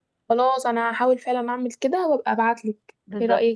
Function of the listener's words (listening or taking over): taking over